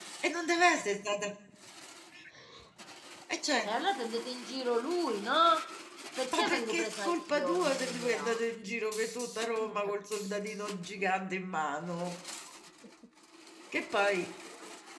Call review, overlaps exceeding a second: present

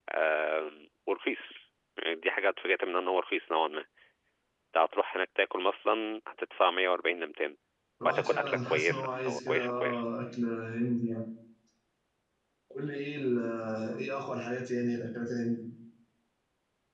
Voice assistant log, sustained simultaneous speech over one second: present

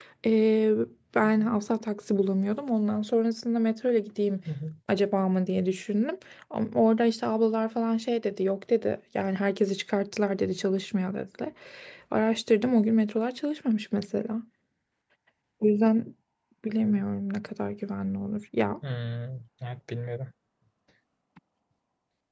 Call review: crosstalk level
none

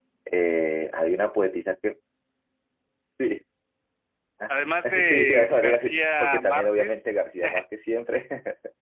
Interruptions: present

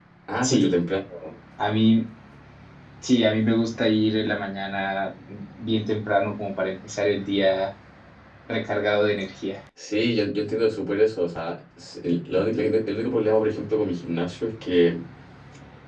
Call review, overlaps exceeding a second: none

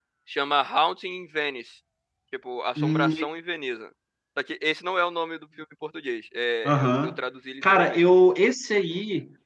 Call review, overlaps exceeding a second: none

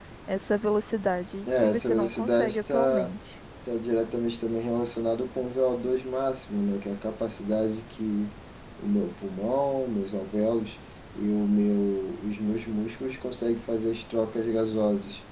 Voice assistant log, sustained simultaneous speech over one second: present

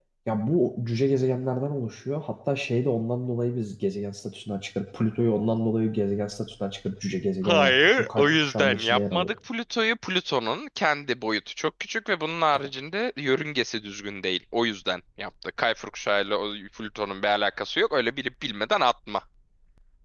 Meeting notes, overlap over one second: present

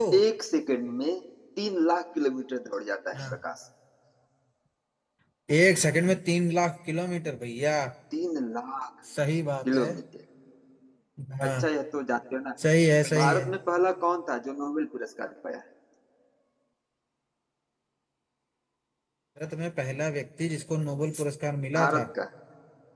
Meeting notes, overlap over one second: none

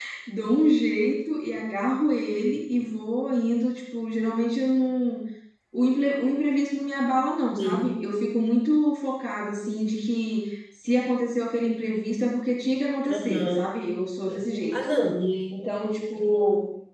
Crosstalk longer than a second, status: none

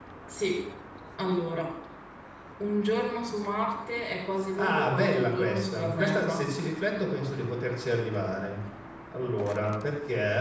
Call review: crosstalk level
present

